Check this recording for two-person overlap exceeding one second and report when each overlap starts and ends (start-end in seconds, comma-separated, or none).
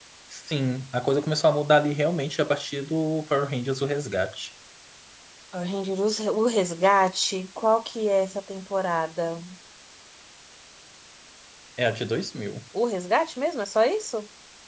none